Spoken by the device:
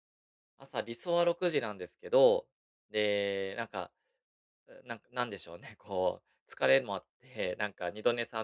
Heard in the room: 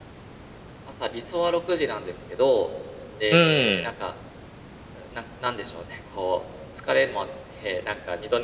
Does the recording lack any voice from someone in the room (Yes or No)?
No